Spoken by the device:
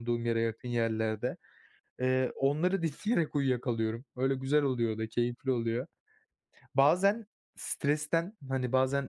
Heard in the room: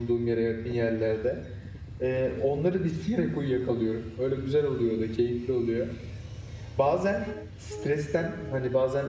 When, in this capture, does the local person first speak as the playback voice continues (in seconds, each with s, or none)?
none